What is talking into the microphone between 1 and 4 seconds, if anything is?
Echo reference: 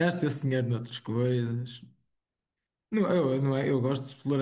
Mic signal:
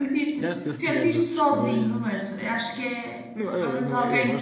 both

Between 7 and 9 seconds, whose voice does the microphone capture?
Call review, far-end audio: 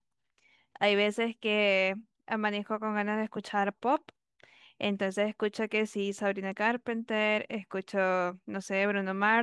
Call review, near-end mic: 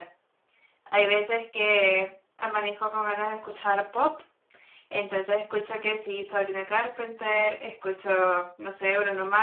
echo only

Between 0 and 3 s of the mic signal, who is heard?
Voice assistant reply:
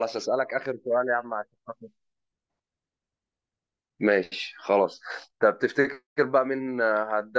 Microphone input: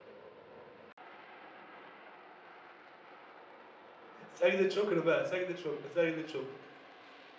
neither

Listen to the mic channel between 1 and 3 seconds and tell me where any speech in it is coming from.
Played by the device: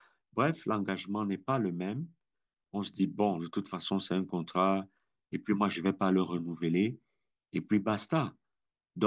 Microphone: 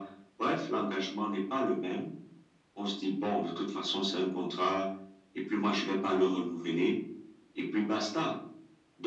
echo only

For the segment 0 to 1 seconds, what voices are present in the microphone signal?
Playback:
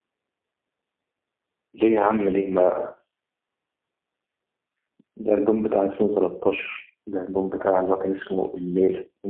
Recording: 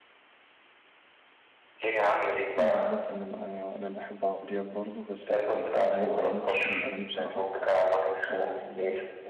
neither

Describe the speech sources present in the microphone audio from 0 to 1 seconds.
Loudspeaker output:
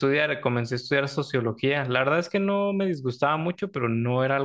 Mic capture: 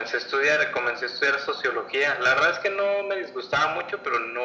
echo only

